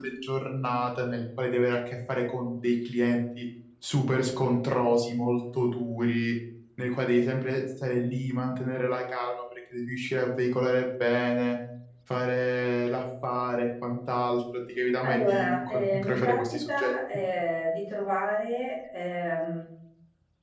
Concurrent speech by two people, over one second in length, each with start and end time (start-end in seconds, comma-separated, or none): 15.0-16.9